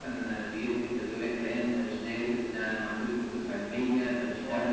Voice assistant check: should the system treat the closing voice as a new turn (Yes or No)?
No